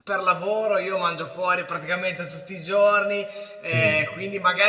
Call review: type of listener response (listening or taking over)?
listening